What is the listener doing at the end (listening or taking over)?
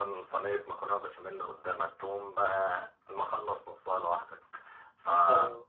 listening